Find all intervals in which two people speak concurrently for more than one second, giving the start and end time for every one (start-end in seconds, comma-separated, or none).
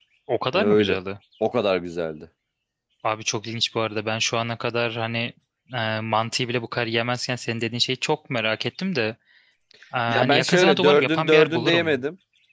10.1-12.0